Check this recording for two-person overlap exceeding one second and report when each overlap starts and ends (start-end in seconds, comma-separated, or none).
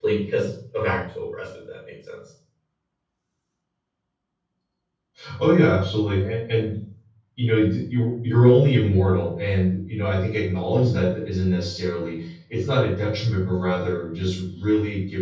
none